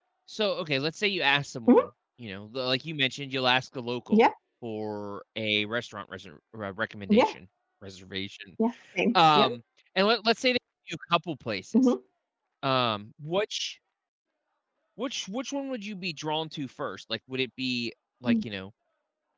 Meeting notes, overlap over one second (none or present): none